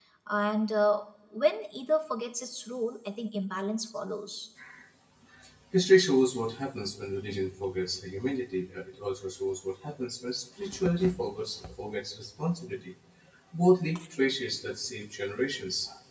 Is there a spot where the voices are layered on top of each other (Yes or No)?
No